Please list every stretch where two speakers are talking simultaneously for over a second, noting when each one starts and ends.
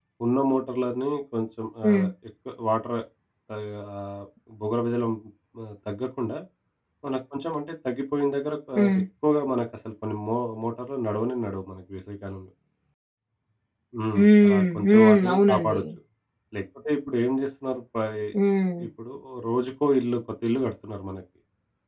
14.2-15.8

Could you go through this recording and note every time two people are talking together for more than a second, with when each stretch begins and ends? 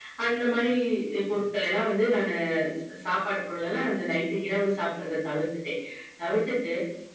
none

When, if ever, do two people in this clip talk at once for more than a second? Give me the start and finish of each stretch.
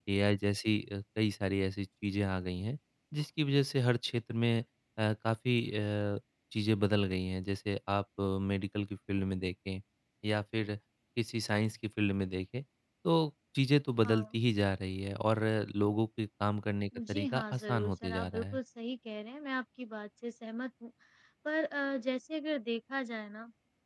17.1-18.6

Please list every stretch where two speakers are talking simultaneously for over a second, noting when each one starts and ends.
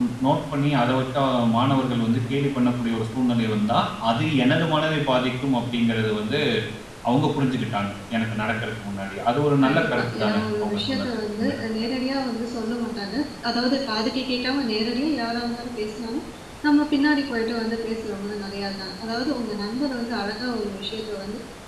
9.6-11.5

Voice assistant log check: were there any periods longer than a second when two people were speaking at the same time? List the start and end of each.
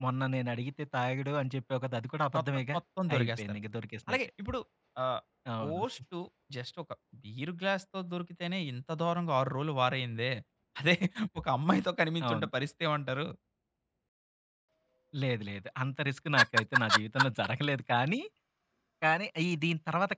none

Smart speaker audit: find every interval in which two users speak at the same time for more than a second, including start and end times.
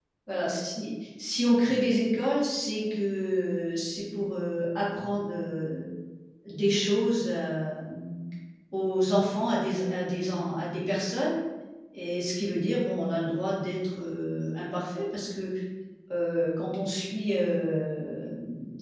none

